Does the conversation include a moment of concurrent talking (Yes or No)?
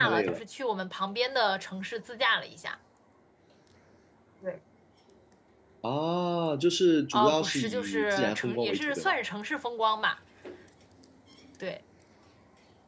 Yes